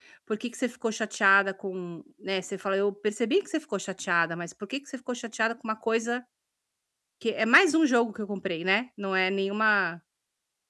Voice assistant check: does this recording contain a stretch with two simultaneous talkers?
No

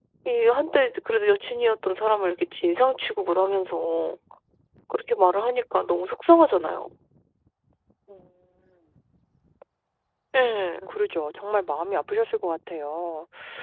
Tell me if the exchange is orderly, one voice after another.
Yes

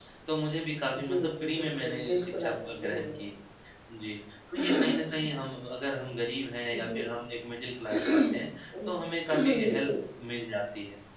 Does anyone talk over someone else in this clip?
Yes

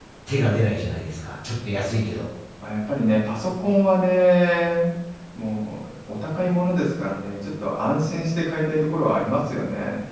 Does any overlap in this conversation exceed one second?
No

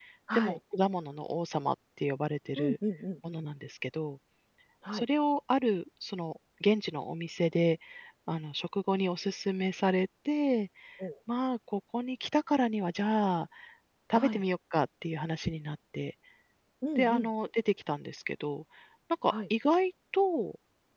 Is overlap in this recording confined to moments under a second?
Yes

